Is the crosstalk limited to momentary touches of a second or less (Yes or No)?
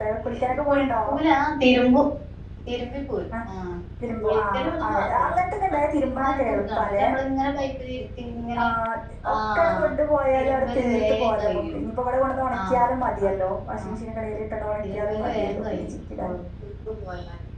No